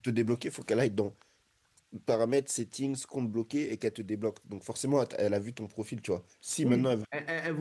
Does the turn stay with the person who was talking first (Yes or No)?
No